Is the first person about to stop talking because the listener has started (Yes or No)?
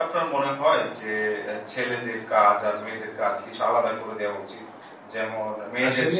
No